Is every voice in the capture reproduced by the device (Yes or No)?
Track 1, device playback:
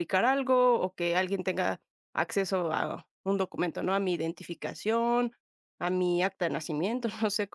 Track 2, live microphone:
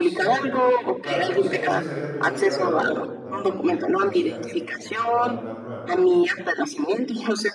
No